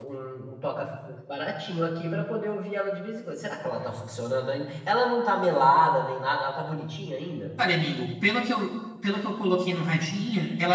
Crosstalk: none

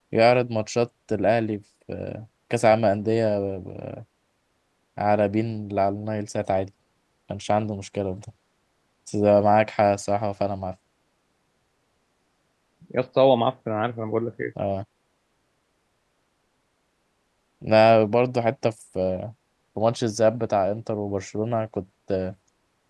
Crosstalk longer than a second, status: none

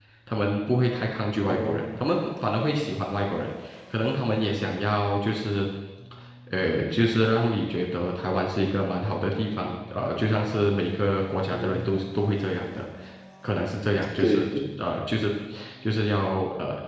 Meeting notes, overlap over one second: none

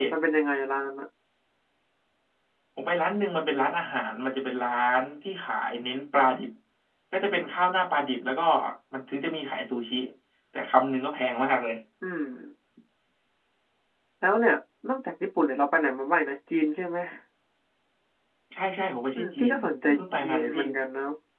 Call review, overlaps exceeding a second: present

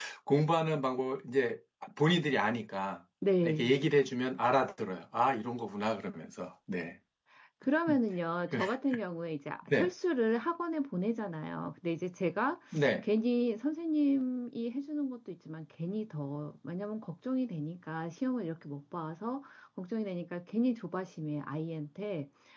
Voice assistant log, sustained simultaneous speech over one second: none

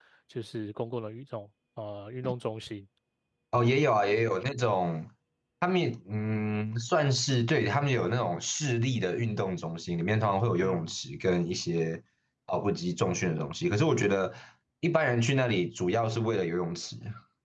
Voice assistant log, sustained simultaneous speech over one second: none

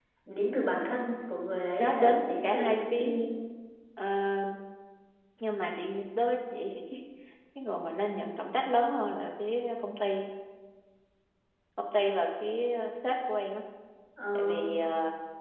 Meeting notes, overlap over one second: present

